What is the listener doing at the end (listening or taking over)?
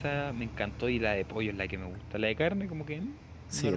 taking over